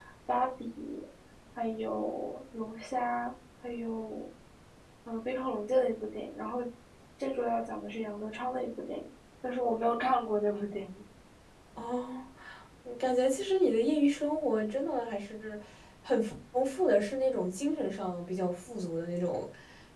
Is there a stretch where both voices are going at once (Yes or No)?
No